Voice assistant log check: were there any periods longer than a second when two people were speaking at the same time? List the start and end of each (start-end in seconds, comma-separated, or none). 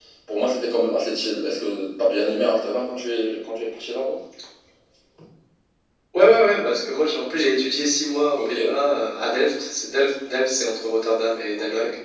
none